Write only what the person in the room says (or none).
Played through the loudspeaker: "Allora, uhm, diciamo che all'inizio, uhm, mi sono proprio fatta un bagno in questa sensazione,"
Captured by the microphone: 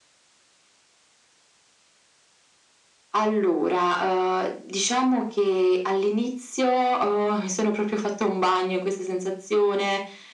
none